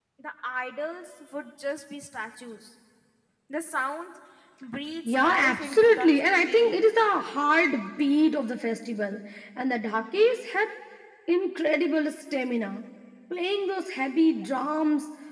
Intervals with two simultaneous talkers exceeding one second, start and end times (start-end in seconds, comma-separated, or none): 5.0-6.7